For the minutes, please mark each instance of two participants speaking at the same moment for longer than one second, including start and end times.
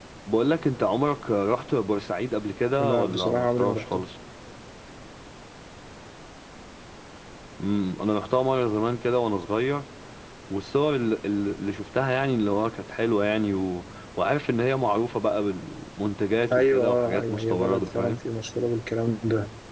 2.8-4.0, 16.5-18.2

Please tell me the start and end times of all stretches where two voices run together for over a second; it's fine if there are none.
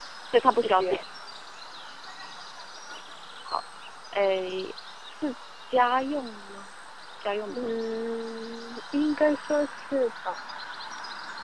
none

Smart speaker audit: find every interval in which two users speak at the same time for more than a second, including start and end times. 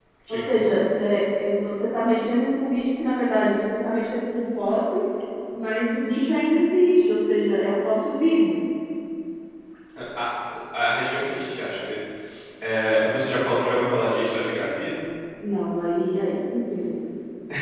none

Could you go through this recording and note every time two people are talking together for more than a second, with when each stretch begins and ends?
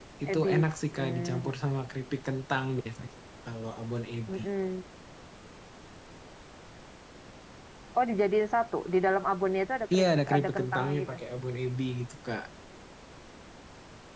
9.9-11.2

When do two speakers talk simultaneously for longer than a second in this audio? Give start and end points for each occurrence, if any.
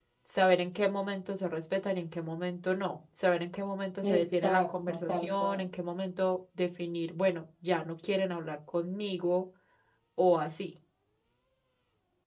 4.0-5.6

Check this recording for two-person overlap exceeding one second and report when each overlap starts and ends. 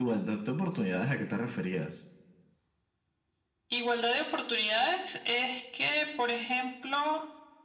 none

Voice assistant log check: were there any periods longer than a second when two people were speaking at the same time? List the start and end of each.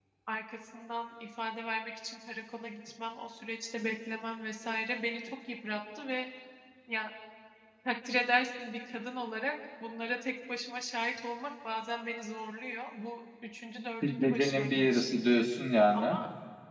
14.0-15.4

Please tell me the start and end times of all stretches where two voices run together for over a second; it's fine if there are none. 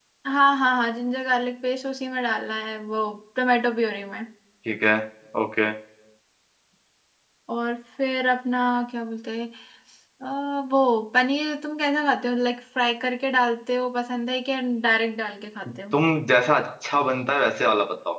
none

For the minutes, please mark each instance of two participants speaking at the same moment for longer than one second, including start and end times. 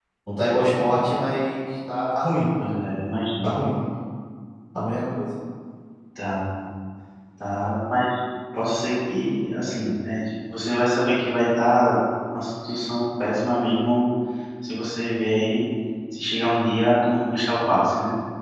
none

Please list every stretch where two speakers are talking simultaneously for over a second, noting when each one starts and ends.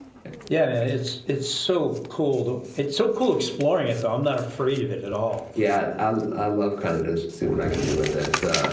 none

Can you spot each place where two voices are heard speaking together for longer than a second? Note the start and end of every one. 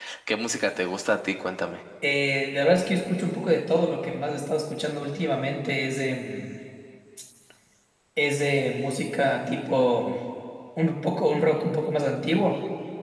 none

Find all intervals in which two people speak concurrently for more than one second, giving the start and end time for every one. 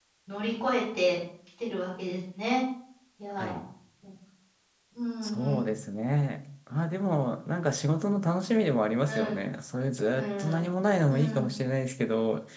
none

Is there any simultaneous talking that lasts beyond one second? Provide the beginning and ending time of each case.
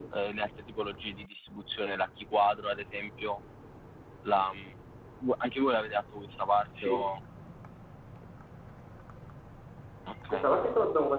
none

